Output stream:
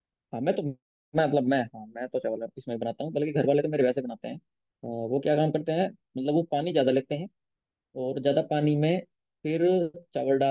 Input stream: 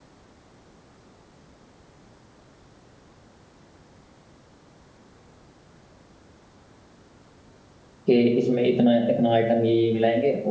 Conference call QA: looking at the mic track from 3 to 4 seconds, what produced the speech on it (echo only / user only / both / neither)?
neither